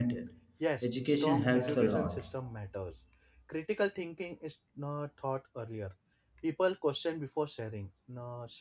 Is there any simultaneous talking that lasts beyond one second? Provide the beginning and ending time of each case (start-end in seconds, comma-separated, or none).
0.8-2.2